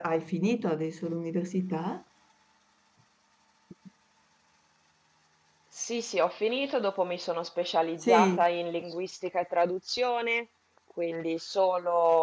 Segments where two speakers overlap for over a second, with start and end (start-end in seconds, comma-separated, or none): none